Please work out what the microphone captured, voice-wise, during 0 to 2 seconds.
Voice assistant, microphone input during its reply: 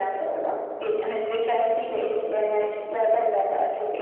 echo only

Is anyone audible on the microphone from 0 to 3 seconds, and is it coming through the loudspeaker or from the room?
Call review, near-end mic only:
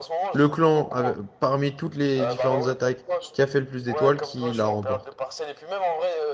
both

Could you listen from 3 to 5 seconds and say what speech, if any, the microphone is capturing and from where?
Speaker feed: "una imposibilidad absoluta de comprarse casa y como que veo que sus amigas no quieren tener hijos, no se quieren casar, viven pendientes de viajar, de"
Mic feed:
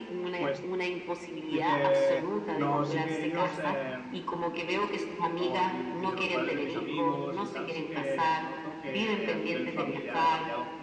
both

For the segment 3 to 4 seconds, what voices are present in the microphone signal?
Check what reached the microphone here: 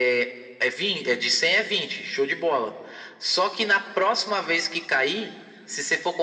echo only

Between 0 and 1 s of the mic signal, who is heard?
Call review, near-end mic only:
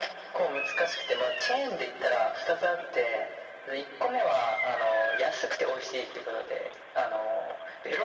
echo only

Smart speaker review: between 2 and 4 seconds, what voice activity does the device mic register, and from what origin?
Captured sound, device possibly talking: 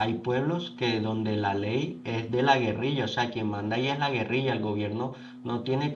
user only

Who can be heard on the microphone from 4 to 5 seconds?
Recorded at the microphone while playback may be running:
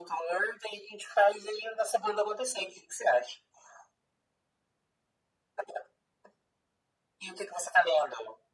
neither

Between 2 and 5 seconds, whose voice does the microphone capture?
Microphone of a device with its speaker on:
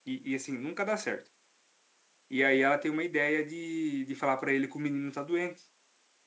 user only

